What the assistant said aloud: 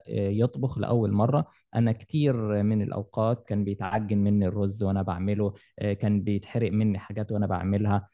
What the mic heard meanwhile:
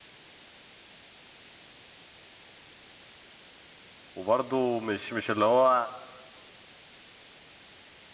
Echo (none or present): none